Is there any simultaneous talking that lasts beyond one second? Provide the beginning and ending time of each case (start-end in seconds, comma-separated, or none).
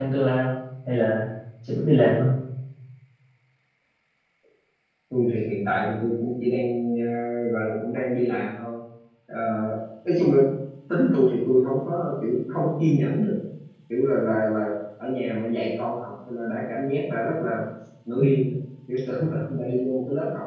none